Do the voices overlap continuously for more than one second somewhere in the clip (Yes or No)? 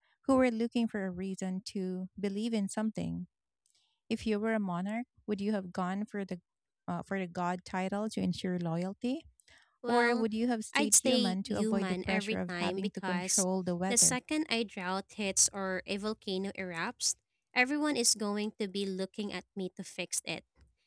Yes